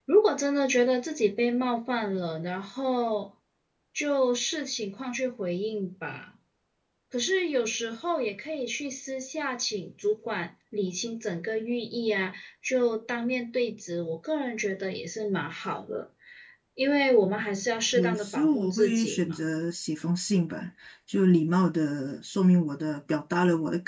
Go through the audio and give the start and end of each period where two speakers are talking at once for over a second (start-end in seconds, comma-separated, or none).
17.9-19.4